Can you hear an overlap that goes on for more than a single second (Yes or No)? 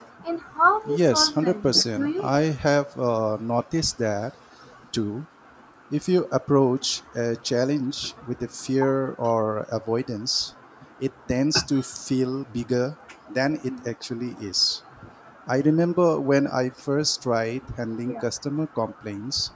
Yes